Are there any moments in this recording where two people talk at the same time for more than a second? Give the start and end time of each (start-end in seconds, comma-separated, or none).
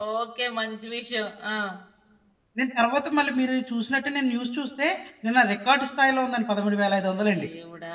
none